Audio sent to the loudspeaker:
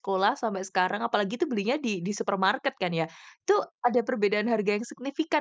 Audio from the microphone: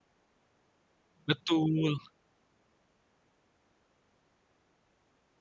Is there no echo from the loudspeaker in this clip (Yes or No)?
Yes